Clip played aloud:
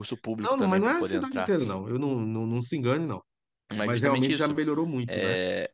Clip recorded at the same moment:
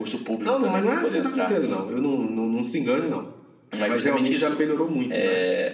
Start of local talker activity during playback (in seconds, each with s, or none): none